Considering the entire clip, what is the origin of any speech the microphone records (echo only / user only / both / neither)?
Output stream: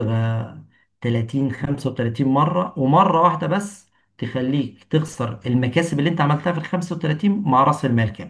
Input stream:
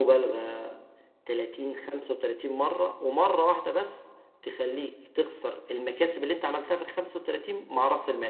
echo only